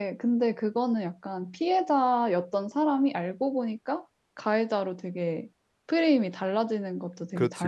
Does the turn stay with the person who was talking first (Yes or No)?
No